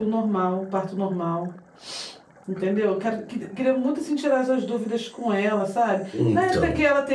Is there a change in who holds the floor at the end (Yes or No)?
No